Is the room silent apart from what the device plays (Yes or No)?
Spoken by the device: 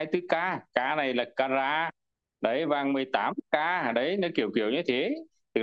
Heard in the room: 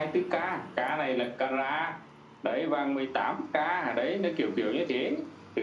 Yes